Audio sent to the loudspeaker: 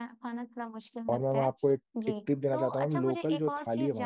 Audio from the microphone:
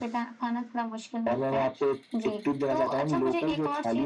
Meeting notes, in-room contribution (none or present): none